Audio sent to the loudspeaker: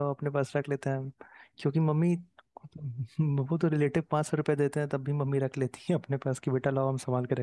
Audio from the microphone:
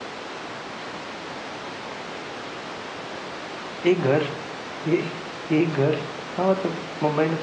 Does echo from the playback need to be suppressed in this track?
No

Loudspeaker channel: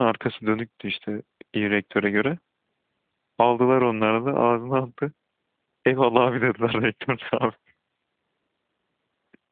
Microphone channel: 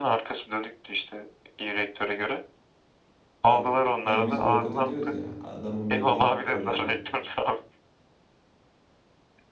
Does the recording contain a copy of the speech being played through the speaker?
Yes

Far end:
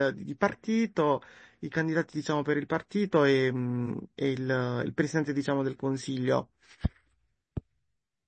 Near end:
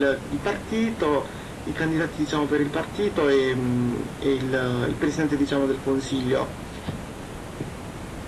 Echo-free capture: No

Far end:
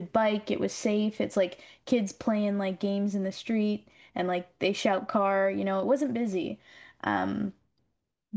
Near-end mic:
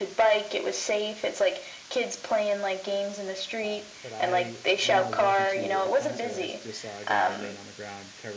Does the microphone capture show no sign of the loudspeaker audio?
No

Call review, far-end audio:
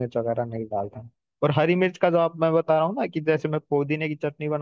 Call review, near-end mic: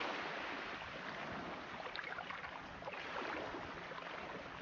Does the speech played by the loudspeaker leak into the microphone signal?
No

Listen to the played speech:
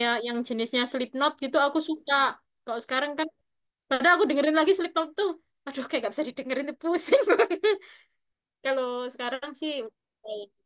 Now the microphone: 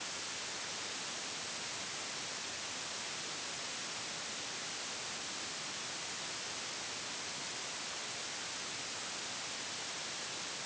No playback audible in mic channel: Yes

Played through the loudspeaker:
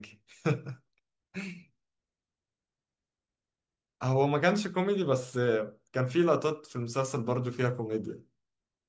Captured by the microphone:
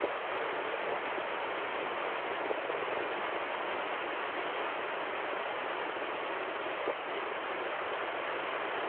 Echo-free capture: Yes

